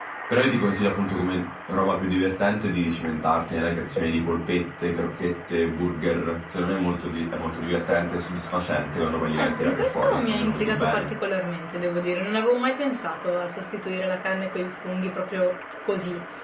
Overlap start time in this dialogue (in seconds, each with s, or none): 9.3 s